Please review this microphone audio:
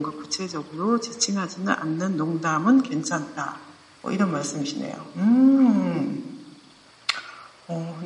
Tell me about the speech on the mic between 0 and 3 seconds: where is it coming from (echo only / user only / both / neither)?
echo only